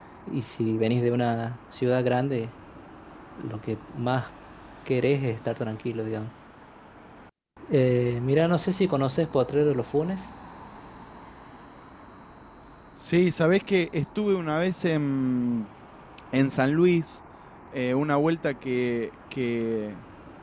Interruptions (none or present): none